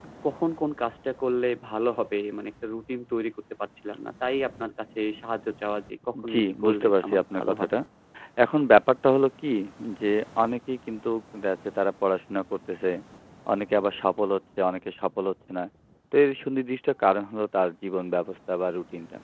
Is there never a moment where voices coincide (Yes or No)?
No